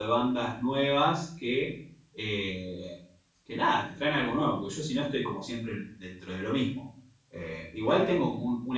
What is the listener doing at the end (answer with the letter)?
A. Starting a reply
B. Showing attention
B